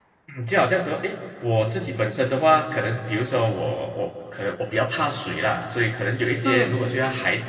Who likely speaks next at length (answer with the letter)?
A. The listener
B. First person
B